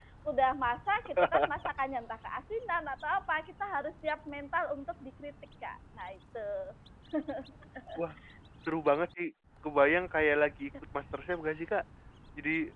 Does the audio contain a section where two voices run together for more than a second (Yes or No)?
No